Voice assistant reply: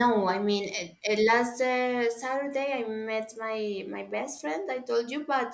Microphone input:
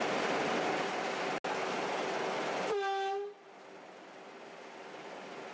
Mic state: neither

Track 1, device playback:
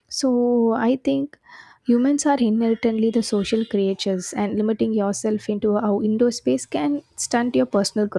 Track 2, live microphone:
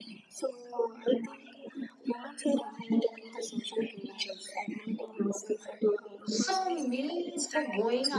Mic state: both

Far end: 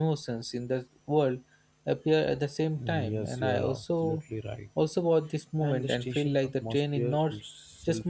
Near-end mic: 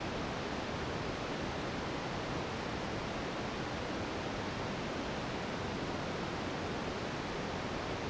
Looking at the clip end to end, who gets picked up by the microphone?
neither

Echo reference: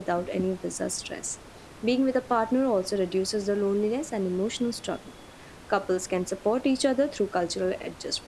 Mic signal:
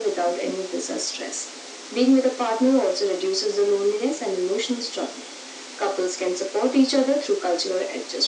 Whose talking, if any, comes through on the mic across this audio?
echo only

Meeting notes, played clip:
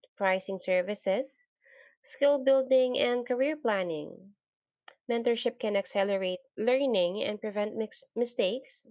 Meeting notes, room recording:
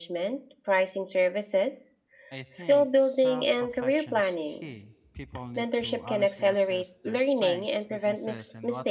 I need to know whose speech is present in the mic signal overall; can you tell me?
both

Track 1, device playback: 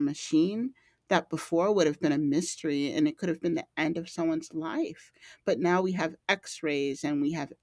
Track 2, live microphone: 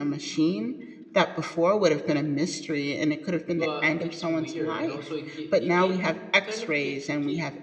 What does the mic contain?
both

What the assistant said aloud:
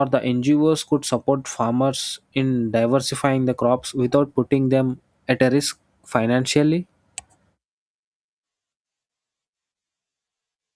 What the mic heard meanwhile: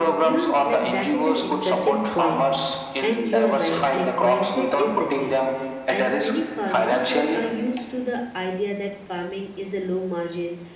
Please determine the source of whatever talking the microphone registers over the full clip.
both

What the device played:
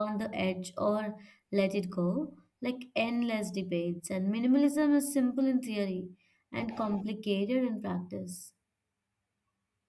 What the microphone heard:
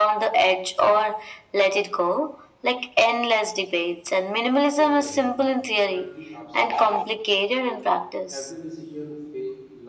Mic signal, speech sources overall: both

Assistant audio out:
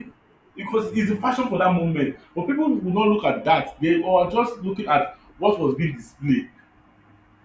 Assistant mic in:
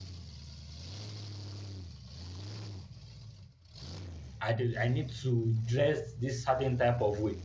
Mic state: user only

